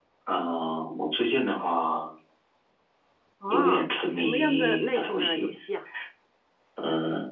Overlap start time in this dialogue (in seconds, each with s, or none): 3.5 s